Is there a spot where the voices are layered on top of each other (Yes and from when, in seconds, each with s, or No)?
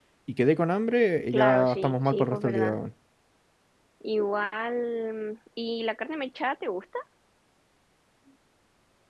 Yes, from 1.3 s